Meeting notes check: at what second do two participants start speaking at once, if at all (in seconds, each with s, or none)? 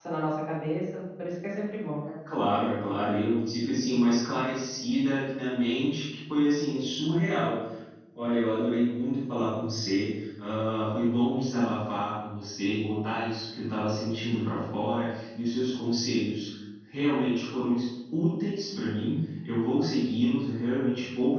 none